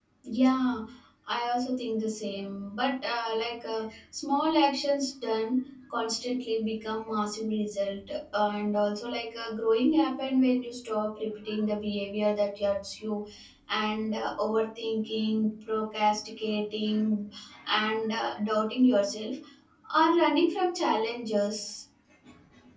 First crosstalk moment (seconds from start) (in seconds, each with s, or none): none